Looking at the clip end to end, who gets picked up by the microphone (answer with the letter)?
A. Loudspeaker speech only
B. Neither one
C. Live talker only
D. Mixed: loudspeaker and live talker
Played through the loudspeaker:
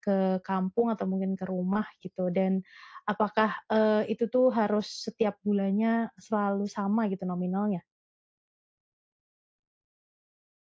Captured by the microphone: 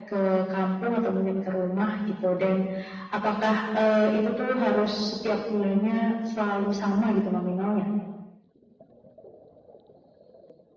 A